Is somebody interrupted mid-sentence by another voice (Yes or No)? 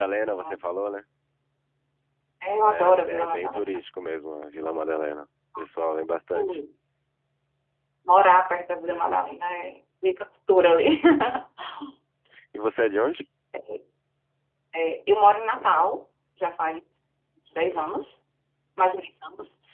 Yes